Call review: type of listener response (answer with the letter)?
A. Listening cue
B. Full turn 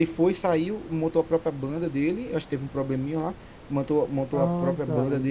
A